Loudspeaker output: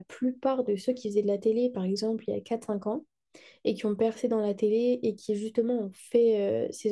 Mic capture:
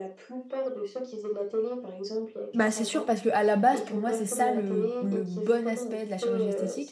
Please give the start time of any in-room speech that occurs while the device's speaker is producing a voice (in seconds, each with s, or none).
2.5 s